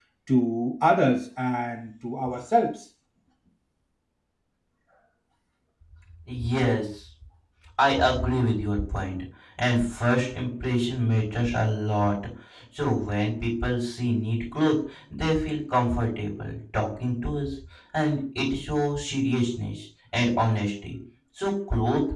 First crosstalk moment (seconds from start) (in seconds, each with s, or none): none